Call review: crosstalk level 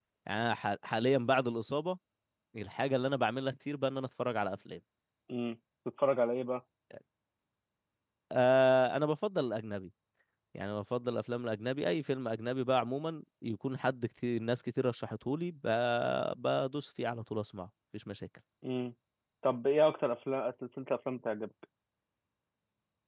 none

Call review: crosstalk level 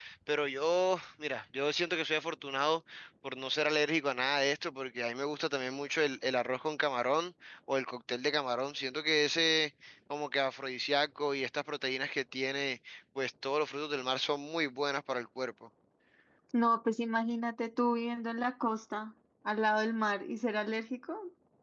none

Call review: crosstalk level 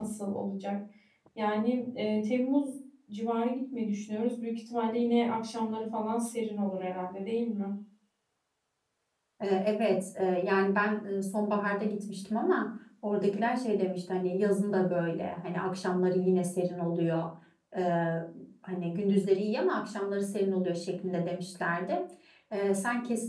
none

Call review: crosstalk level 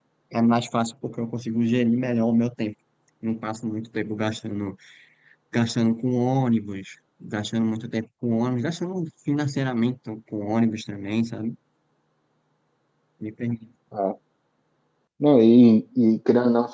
none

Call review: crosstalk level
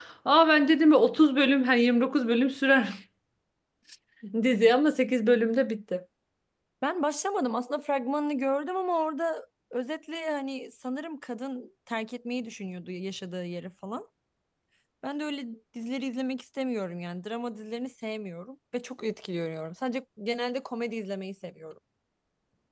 none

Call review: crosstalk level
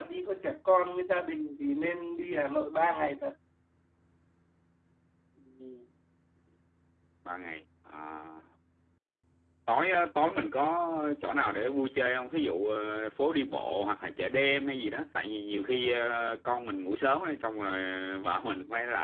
none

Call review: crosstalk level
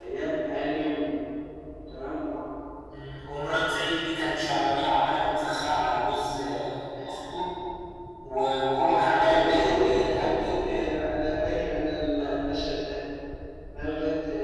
present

